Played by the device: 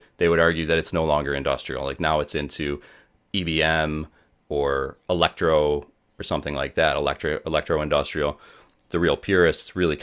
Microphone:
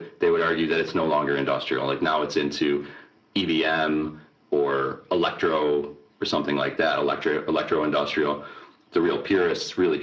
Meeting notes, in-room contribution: none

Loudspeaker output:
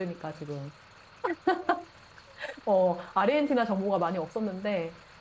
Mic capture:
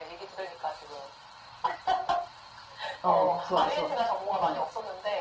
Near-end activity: present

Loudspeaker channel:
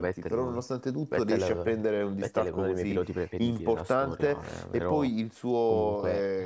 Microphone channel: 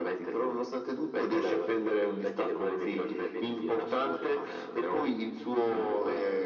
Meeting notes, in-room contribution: none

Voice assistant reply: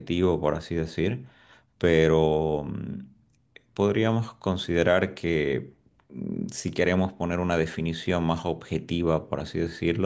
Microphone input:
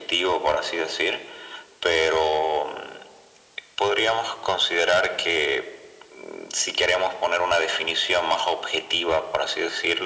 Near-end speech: none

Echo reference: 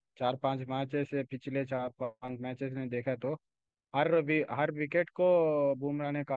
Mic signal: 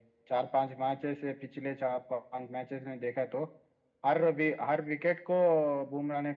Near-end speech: none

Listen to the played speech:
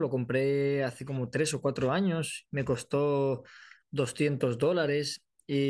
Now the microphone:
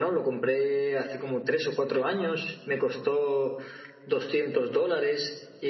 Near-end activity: none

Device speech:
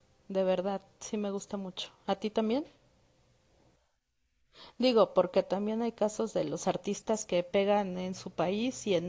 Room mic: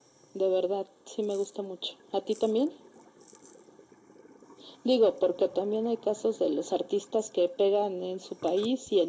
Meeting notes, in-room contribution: none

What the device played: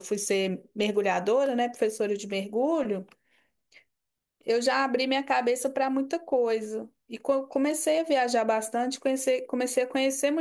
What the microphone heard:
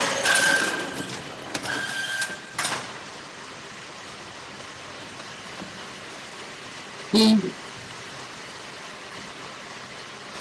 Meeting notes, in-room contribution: present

